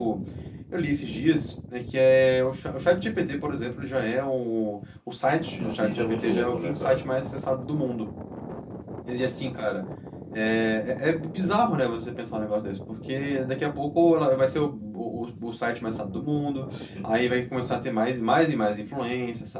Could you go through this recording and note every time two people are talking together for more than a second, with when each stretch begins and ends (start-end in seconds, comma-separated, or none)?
5.6-7.0